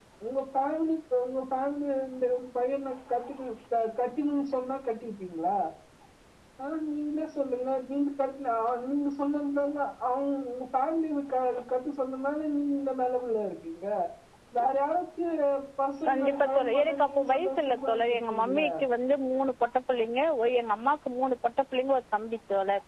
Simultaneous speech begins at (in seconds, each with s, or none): 16.1 s